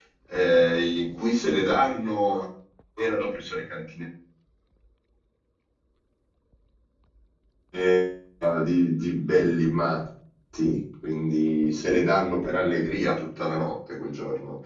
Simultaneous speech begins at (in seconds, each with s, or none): none